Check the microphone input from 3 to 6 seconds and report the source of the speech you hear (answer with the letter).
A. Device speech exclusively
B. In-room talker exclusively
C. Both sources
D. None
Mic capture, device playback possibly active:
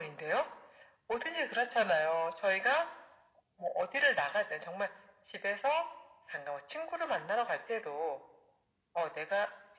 A